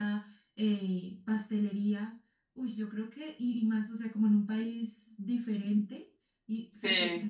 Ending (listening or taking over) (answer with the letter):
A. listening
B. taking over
A